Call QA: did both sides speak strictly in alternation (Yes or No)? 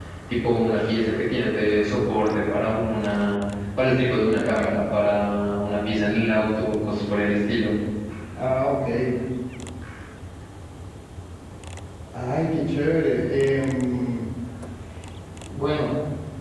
Yes